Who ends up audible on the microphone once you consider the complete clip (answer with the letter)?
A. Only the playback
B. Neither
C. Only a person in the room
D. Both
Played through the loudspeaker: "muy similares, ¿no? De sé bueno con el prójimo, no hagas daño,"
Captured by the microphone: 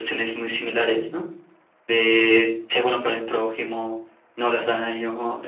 A